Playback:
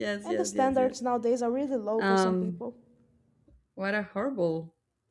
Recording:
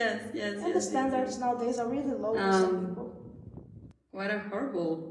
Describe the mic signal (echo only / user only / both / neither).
echo only